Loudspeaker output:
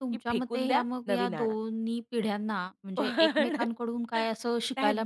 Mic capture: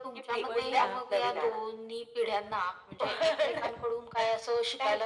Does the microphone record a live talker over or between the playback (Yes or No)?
Yes